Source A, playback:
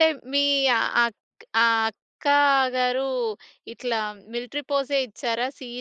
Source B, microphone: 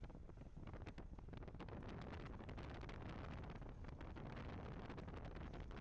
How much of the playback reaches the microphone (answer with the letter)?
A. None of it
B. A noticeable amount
A